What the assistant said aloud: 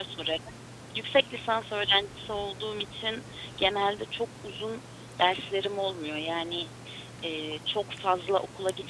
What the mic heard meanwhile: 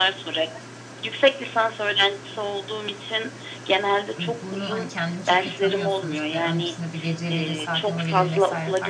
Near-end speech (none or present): present